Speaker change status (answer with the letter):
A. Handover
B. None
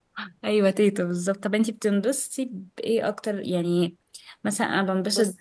B